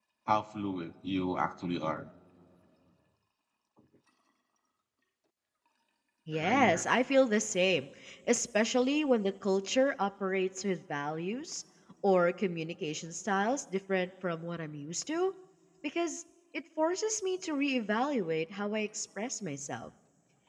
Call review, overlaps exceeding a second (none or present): none